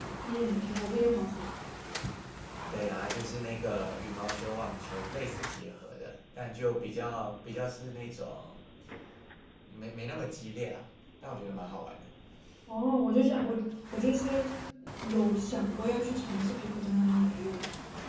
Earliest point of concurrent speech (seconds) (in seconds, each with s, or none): none